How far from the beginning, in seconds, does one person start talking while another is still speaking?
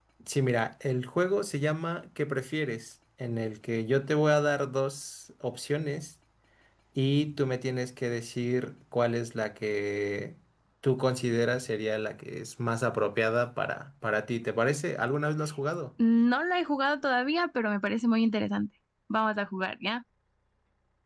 none

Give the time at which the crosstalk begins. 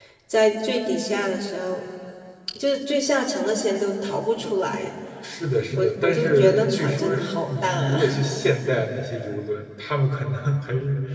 6 s

